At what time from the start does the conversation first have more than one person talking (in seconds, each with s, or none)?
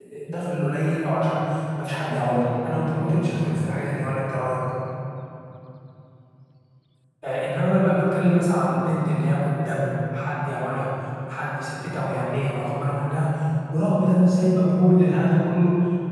2.0 s